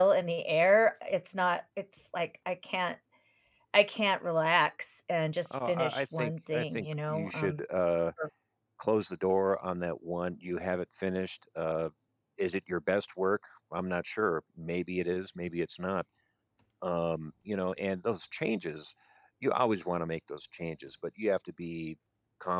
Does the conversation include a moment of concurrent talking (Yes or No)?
Yes